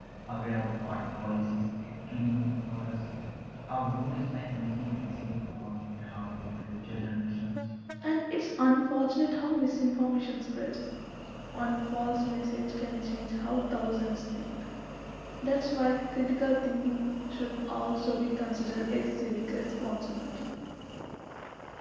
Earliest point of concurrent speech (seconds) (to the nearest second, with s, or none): none